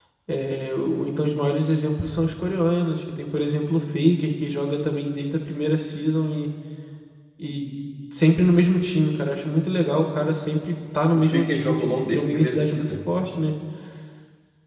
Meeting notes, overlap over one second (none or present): present